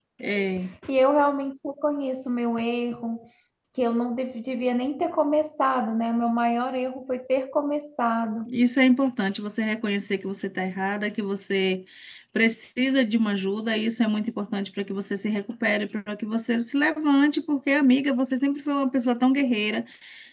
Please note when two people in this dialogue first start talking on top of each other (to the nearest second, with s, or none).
none